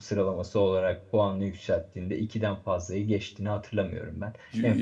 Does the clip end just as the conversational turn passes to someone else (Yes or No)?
No